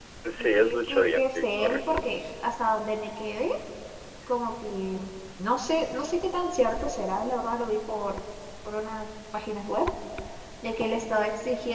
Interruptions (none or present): present